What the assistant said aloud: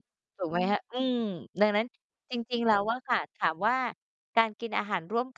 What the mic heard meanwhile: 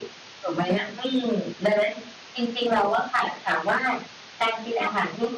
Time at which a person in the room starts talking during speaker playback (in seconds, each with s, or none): none